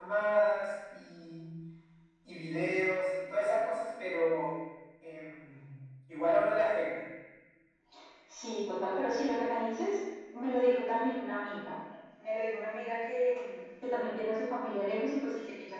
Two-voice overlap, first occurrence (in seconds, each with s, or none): none